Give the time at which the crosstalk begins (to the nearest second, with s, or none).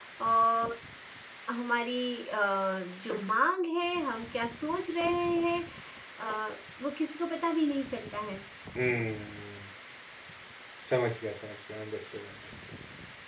none